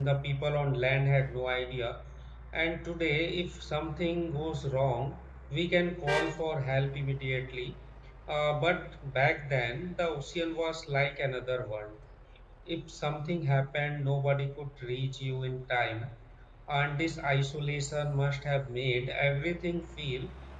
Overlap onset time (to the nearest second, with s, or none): none